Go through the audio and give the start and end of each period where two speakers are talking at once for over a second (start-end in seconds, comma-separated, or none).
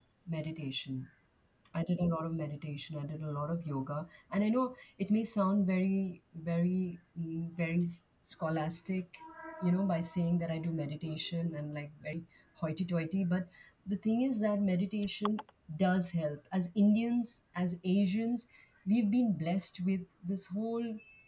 none